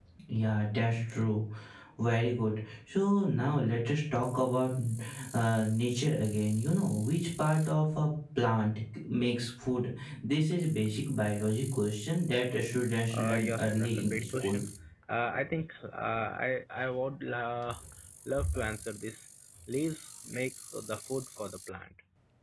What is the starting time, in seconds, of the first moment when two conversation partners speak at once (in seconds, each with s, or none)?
13.1 s